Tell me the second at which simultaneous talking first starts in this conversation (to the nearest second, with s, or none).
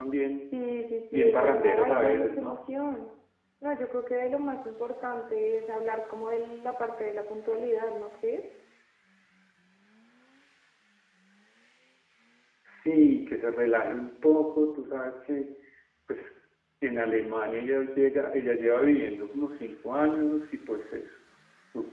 1 s